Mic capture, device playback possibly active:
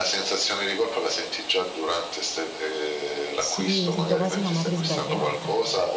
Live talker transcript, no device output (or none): Sì, mi sento quasi una madre sbagliata.